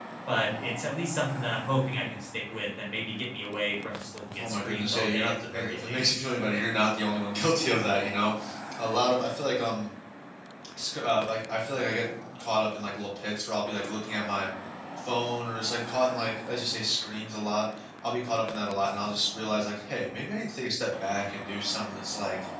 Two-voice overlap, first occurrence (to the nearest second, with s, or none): 4 s